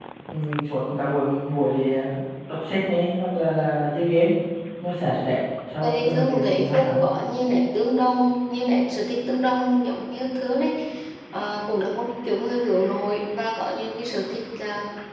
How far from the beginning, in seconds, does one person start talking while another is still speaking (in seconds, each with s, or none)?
5.8 s